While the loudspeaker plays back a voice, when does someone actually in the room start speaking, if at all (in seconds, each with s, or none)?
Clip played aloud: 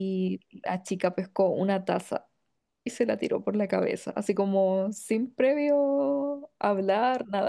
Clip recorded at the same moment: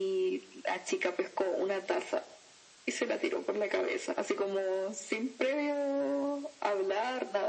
none